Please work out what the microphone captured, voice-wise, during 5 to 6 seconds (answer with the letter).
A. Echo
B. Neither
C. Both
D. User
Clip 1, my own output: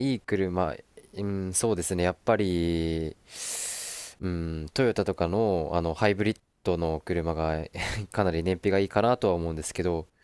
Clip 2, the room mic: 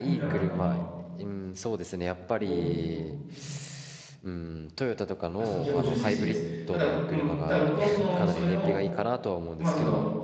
C